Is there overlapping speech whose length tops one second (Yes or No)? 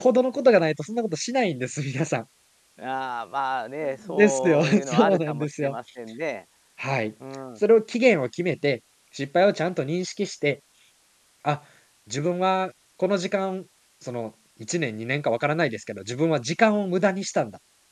Yes